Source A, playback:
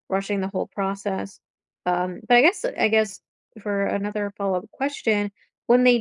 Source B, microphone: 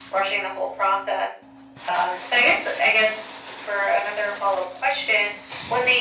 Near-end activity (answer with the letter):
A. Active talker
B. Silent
B